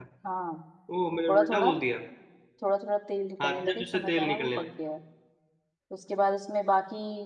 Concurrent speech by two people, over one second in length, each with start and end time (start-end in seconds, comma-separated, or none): 3.4-4.6